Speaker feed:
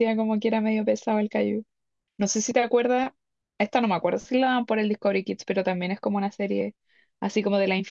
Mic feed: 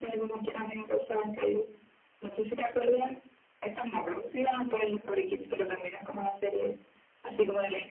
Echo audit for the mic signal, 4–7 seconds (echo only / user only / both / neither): echo only